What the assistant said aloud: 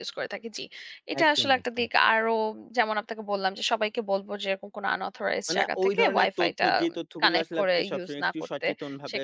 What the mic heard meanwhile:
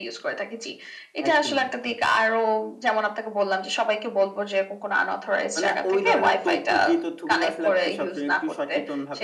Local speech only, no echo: none

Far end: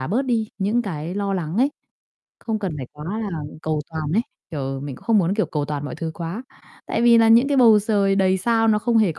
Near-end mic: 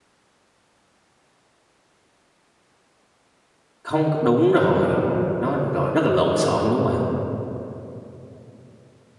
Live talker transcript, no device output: Không c đúng rồi, nó rọi rất là lộn xộn, đúng hông bạn?

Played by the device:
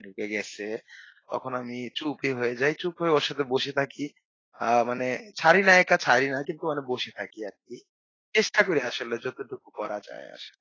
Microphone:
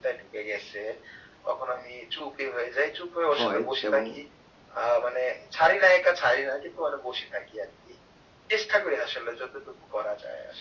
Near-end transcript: হয় এবং

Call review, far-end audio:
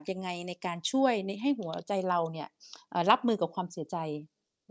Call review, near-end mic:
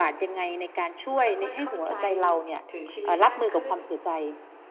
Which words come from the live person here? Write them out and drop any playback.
ค่อย ๆ เข้าใจถึงชีวิตมากขึ้น

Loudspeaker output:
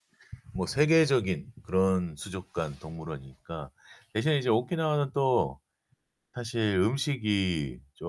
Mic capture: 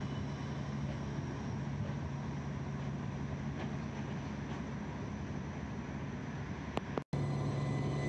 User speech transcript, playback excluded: none

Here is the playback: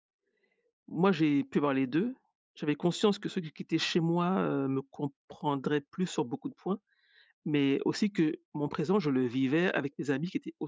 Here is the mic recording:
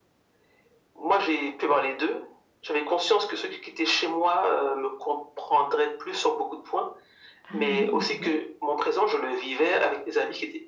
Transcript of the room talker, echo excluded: Ah oui, c'est vrai.

